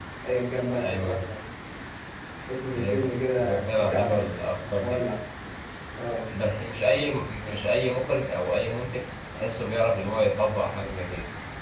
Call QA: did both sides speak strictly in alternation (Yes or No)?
No